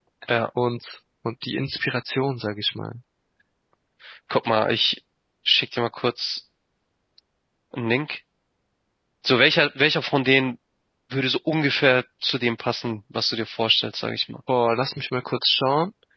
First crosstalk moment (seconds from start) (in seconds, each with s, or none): none